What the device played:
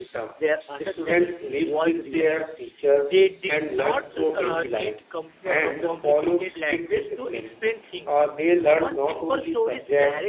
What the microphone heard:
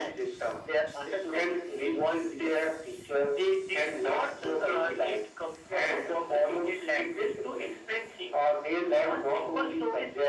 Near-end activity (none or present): none